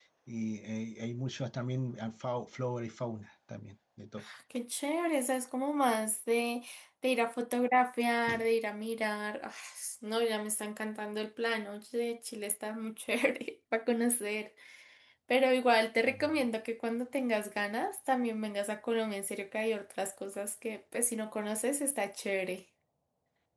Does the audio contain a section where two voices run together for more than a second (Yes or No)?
No